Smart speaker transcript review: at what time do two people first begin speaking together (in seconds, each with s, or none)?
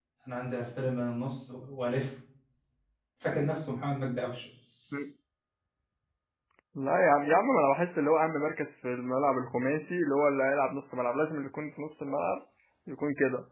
none